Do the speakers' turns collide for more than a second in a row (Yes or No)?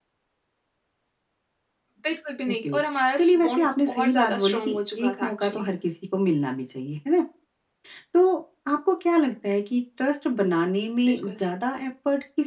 Yes